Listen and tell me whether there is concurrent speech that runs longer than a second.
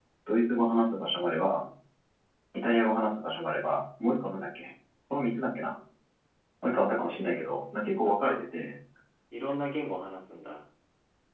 Yes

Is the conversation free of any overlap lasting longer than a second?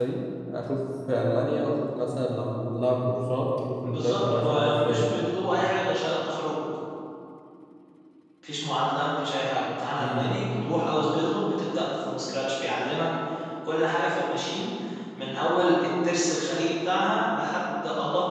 No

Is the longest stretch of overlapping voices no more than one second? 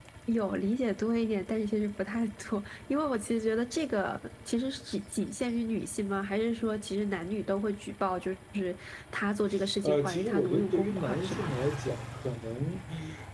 No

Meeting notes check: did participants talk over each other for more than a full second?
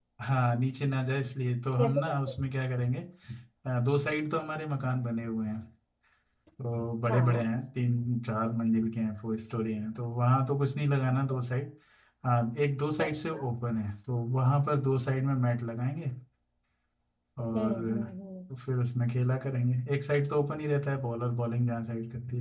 No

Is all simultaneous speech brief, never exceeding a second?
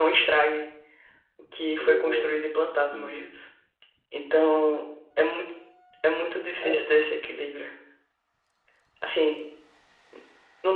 No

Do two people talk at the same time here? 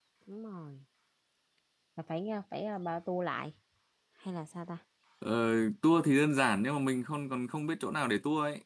No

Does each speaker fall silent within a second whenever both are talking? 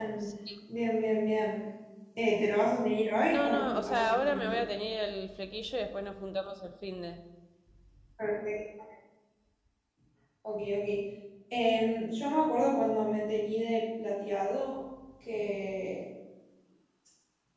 No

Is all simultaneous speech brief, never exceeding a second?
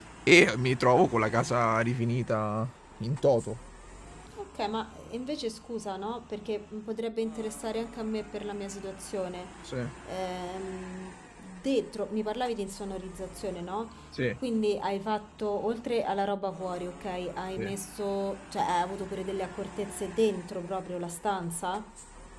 Yes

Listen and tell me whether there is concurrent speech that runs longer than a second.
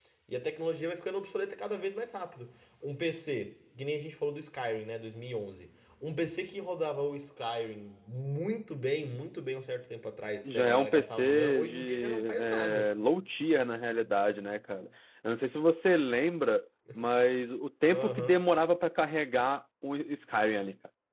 Yes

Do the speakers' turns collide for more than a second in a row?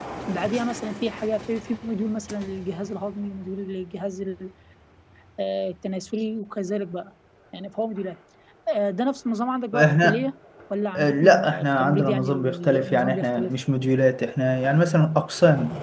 Yes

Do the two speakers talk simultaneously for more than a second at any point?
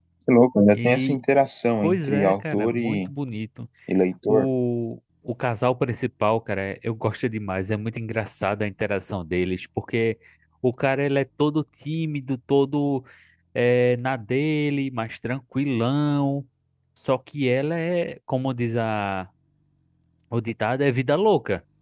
Yes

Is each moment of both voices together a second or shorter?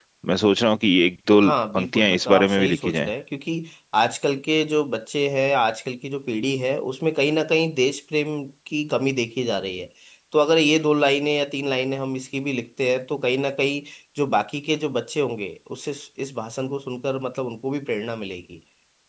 No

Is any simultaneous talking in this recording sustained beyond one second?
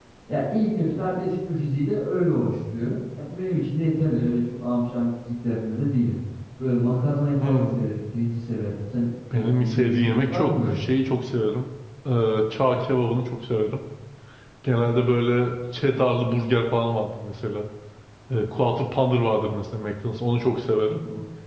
Yes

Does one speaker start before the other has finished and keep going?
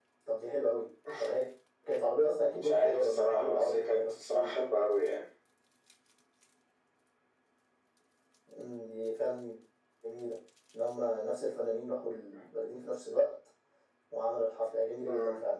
Yes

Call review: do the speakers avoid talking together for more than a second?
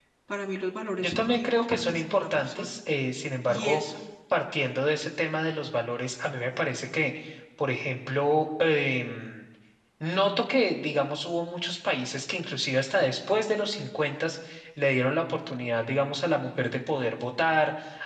No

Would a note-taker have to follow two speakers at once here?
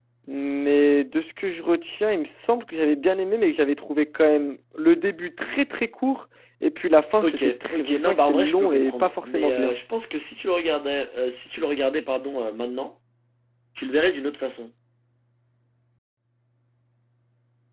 Yes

